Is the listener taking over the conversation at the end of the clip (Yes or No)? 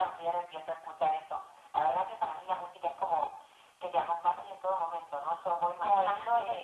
No